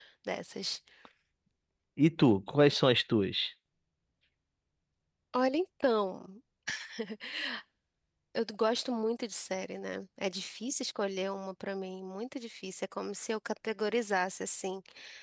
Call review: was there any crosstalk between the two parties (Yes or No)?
No